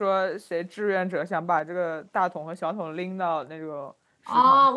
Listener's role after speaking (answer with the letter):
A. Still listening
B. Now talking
B